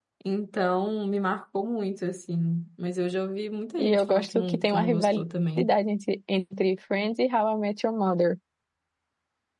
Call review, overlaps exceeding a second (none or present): present